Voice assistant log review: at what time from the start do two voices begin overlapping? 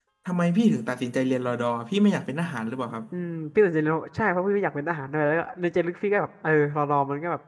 none

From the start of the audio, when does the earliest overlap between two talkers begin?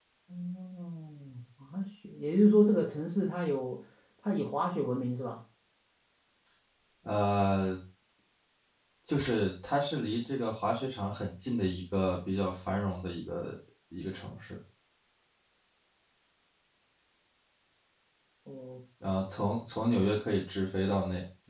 none

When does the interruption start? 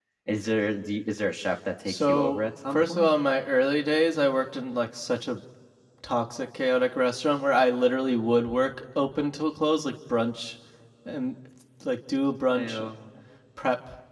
1.9 s

